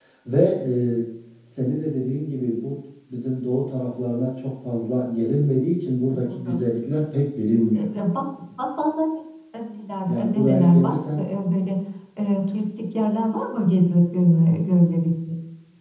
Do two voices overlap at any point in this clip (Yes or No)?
Yes